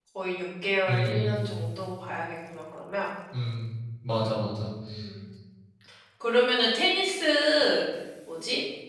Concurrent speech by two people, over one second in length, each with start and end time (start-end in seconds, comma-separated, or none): none